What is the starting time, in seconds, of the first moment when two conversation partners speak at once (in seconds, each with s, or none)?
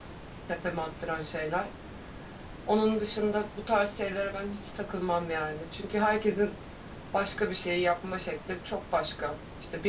none